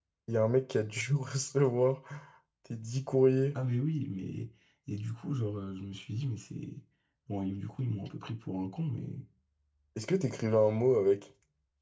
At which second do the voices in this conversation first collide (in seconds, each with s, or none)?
none